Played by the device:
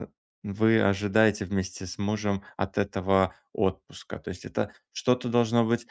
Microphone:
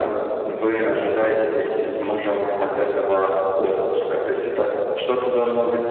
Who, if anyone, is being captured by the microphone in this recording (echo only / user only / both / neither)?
echo only